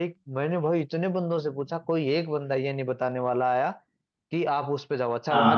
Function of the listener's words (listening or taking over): listening